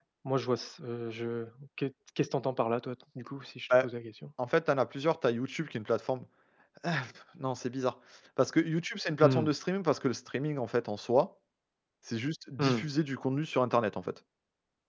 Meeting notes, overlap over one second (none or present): none